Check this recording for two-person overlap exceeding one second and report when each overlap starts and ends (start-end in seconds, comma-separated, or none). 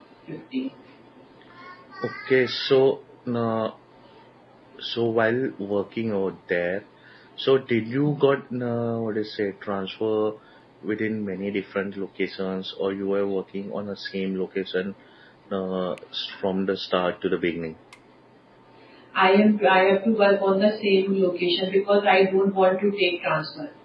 none